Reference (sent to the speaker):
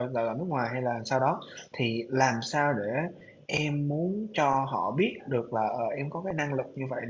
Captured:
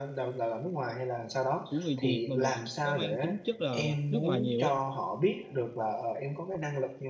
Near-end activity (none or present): present